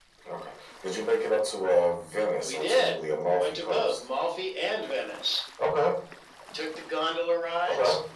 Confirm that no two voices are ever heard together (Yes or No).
No